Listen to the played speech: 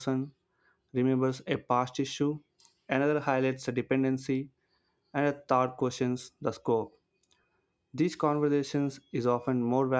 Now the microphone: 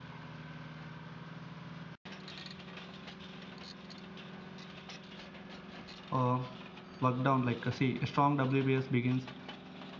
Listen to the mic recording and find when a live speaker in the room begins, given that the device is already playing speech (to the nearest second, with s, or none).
6 s